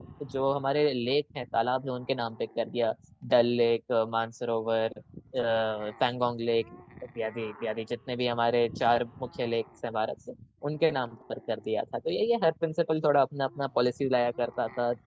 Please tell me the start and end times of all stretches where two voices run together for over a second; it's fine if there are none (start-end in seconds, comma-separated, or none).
none